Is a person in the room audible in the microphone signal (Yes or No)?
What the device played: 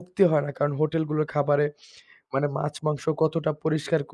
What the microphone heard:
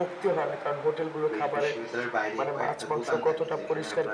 Yes